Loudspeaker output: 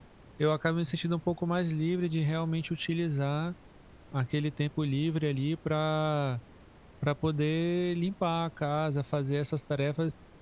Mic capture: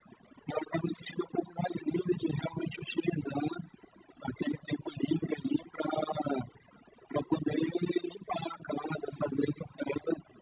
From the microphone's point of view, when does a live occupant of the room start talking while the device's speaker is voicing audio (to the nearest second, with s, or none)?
none